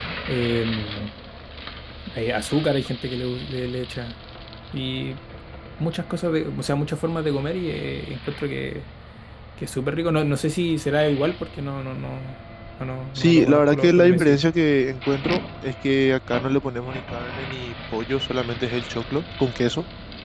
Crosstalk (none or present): present